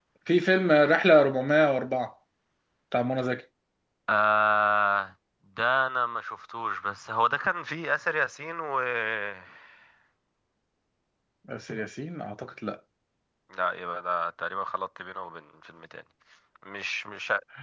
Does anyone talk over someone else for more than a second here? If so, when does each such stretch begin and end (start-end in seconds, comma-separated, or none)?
none